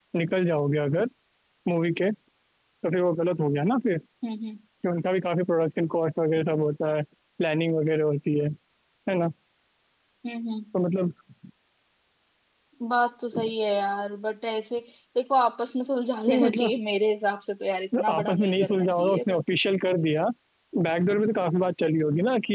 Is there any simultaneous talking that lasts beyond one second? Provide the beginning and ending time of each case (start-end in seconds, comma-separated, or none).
18.0-19.4